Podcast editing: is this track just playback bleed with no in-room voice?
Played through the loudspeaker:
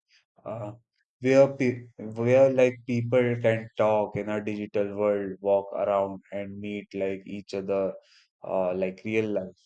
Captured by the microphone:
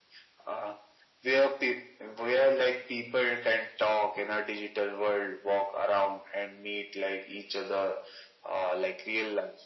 Yes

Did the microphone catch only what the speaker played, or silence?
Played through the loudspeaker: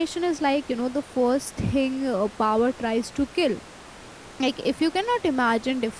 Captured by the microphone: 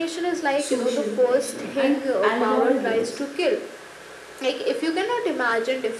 No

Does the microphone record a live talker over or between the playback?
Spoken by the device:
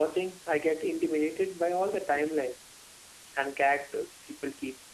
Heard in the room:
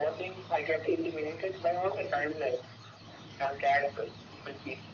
No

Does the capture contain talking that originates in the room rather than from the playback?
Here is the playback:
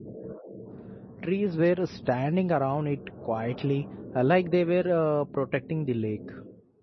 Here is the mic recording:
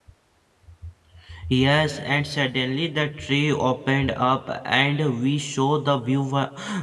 Yes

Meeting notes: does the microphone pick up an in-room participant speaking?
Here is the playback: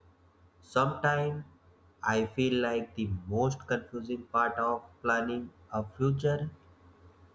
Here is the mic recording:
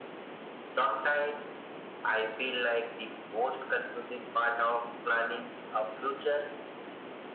No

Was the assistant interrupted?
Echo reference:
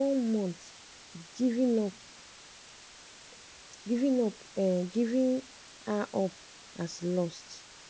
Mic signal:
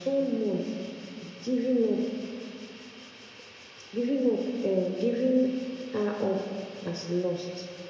No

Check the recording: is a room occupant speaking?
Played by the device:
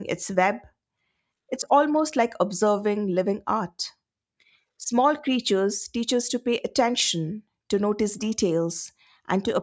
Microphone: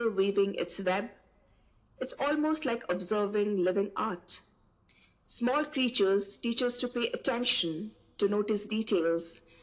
No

